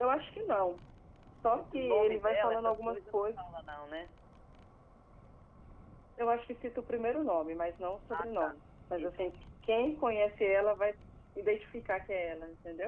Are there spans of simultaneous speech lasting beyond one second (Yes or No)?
Yes